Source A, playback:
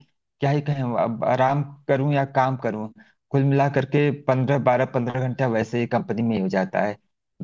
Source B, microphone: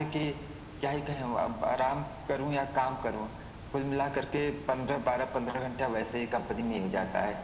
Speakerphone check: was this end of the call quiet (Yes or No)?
Yes